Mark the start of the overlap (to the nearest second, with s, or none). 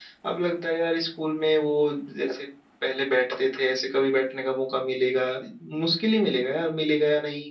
none